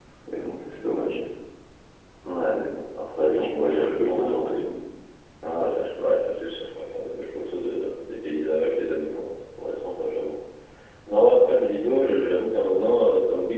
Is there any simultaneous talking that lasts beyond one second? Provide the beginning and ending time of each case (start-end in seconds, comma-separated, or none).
3.3-4.5